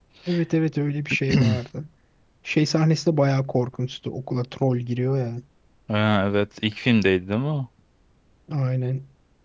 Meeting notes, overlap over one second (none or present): none